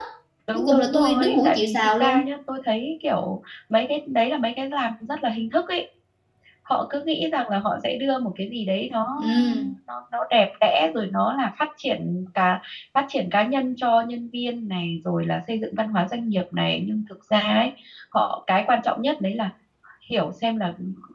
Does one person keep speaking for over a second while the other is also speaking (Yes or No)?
Yes